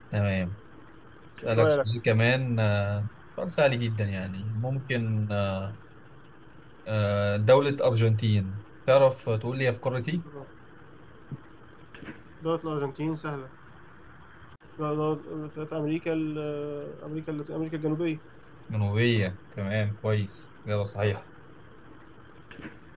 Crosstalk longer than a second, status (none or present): none